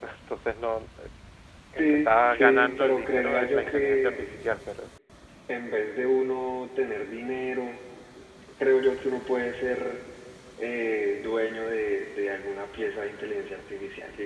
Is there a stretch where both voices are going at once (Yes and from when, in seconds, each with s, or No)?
Yes, from 1.7 s